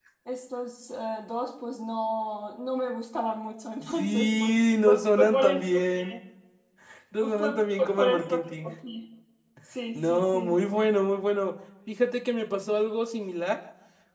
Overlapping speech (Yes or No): Yes